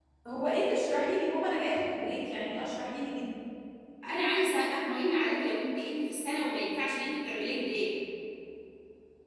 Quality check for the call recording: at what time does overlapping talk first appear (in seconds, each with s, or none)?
none